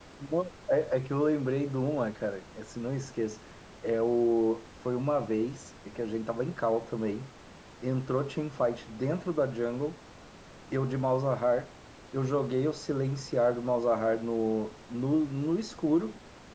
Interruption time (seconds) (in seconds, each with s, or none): none